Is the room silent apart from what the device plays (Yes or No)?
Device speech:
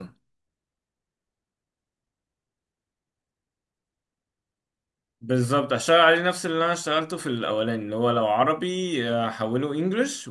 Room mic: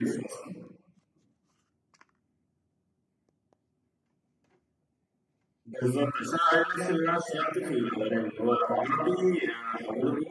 Yes